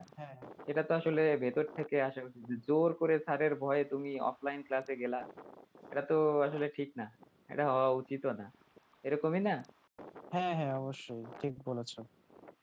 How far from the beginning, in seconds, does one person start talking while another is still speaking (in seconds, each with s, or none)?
none